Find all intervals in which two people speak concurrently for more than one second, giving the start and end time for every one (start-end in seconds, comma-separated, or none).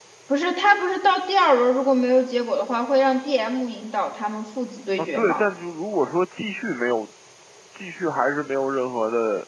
none